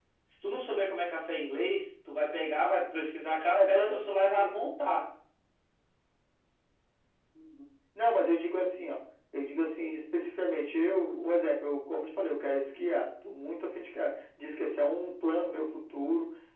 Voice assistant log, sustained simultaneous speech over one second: none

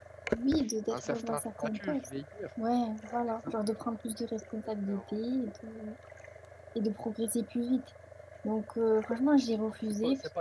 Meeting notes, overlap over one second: present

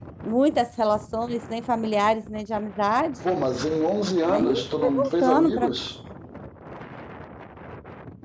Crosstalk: present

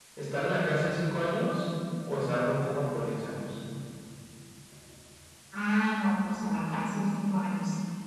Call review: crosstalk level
none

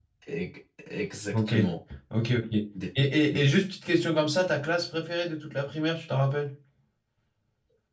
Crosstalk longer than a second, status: none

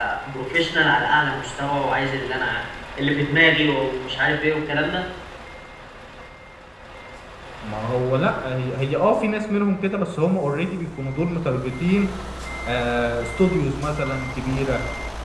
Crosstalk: none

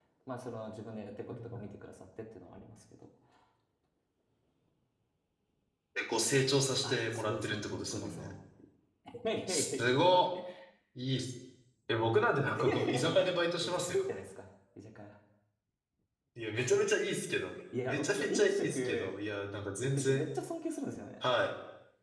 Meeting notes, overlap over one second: present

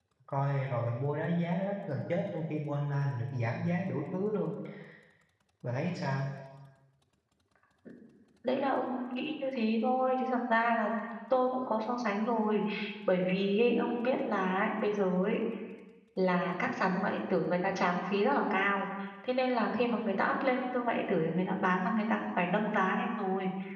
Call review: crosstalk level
none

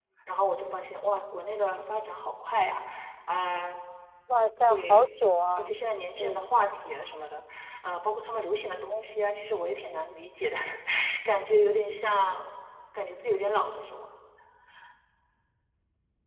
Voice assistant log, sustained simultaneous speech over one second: none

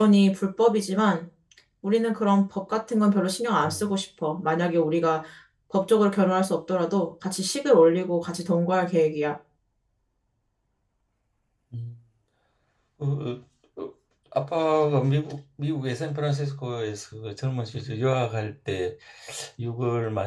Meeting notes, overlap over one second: none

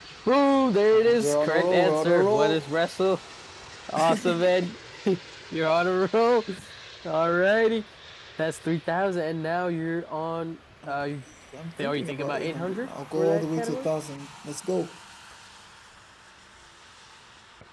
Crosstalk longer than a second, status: present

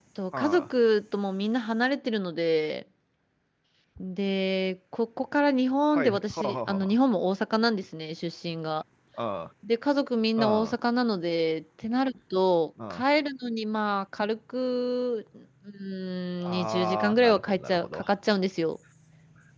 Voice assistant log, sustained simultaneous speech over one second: present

